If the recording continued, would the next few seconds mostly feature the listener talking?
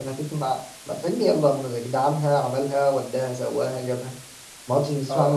Yes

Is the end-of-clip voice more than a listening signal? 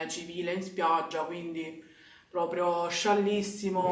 Yes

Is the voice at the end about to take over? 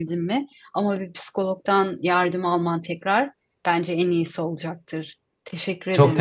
Yes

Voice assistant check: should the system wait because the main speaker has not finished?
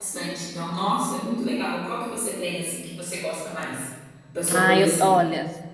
No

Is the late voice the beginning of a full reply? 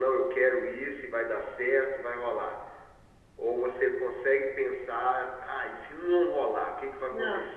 Yes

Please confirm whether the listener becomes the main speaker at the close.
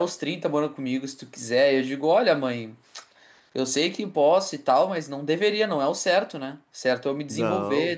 No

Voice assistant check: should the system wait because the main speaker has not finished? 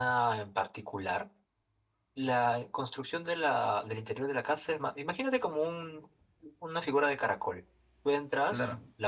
Yes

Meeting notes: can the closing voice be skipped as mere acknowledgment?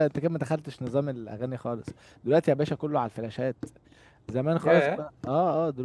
Yes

